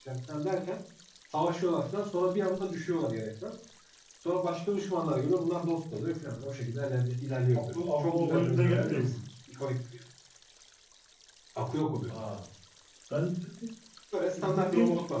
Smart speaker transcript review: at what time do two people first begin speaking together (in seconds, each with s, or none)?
7.7 s